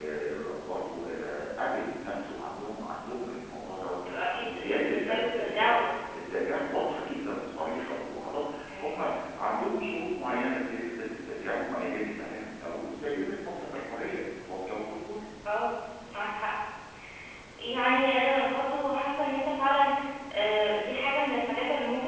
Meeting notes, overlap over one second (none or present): present